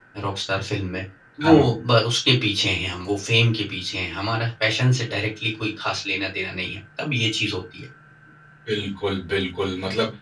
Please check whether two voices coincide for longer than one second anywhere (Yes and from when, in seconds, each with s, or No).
No